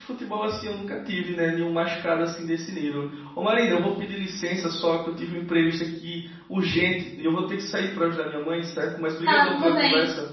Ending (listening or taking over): taking over